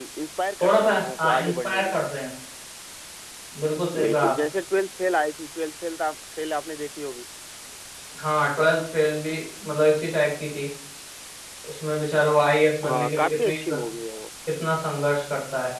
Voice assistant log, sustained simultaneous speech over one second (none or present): present